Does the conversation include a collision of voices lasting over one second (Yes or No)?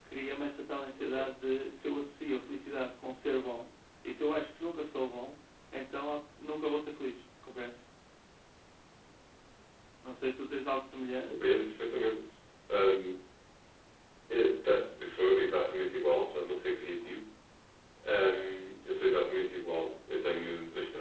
No